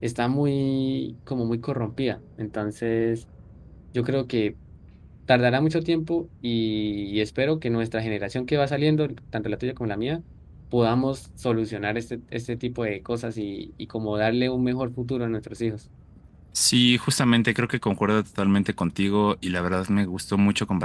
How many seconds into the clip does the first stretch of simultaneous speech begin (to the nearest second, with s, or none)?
none